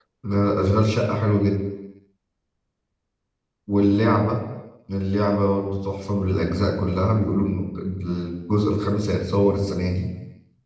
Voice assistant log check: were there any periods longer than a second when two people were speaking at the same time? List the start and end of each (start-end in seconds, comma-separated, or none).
none